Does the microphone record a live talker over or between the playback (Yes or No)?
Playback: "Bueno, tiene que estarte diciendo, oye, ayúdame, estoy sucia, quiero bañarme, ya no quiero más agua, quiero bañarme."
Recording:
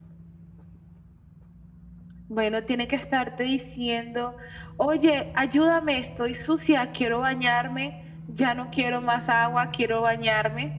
No